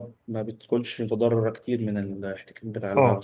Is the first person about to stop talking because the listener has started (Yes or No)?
Yes